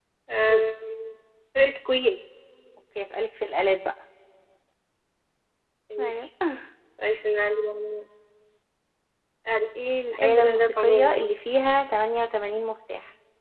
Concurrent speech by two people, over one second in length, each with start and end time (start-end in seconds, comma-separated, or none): 10.1-11.3